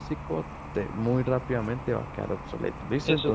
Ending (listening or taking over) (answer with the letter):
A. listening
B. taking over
B